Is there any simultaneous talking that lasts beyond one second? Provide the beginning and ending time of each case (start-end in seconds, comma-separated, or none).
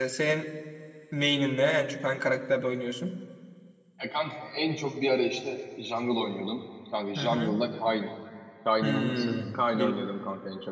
8.8-10.1